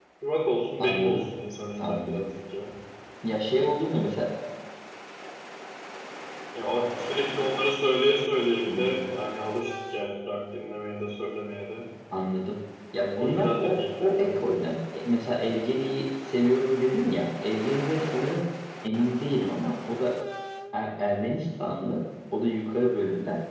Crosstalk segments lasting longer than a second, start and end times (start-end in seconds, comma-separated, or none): 13.2-14.4